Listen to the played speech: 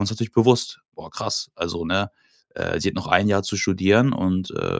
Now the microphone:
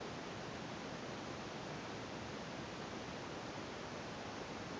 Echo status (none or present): none